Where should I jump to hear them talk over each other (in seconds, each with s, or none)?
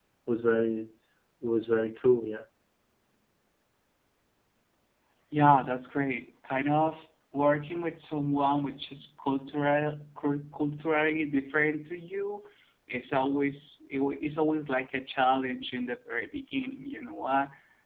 none